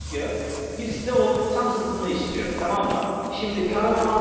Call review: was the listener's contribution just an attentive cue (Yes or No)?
Yes